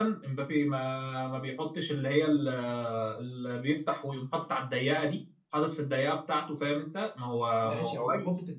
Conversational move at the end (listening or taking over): taking over